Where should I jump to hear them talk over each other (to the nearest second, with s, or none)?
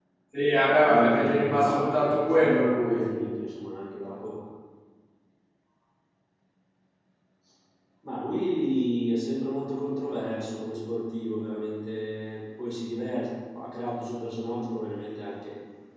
1 s